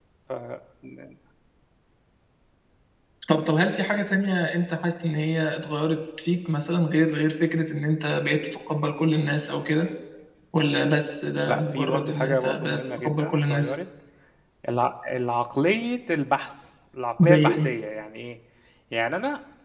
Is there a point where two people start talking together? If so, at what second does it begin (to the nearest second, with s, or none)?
11 s